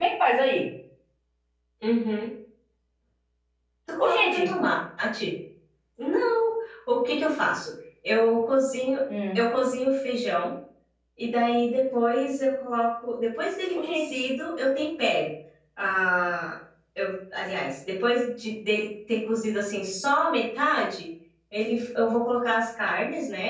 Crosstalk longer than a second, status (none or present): none